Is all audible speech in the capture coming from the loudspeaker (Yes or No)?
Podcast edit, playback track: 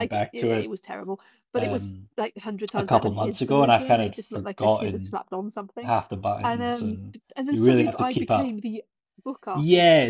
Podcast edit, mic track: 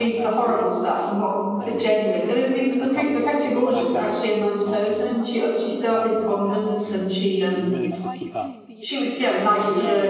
No